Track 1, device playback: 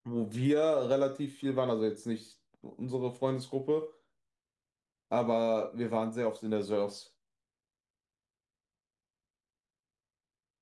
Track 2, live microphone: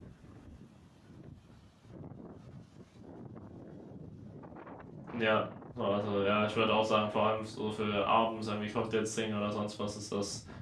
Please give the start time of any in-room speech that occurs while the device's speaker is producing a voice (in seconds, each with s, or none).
5.1 s